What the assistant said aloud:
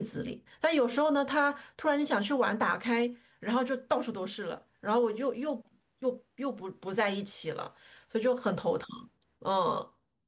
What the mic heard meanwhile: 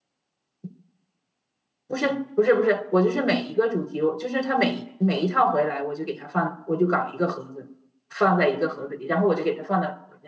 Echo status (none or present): none